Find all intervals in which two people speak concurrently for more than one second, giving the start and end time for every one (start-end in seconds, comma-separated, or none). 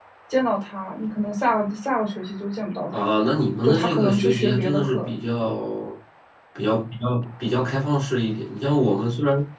3.6-5.2